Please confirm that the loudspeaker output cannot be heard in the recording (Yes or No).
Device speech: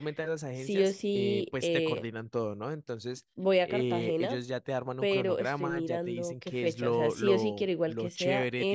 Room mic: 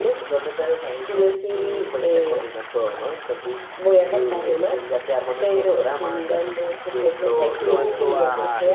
No